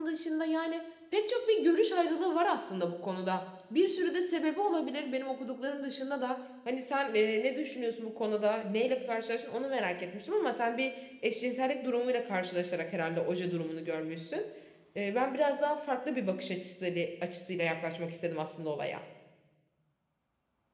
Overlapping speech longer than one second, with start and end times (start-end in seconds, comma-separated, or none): none